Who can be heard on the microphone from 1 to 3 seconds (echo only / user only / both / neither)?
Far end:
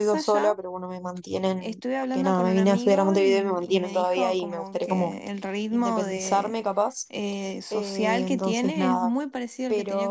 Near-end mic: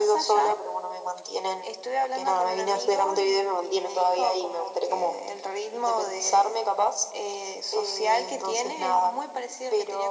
echo only